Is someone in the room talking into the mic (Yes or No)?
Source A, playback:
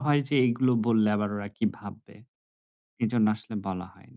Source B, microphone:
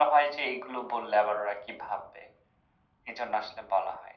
No